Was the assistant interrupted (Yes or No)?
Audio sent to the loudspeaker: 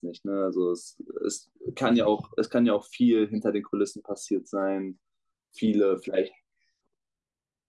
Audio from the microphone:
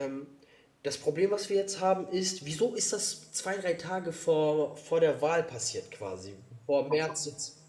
Yes